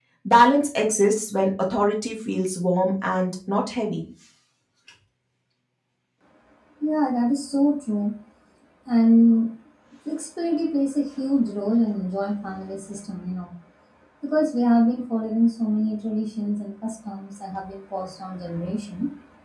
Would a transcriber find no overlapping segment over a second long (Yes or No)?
Yes